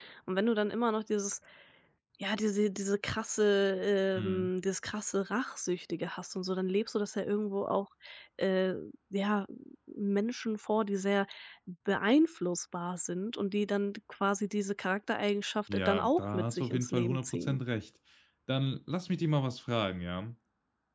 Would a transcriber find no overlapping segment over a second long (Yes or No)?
No